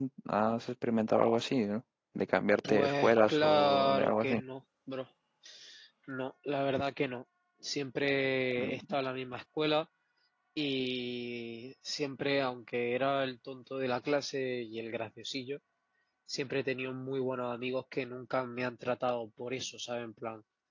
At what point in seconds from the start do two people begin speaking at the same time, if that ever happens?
2.7 s

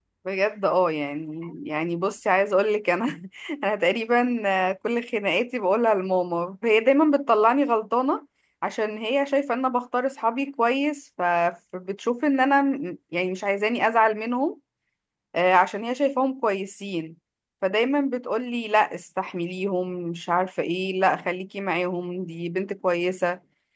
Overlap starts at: none

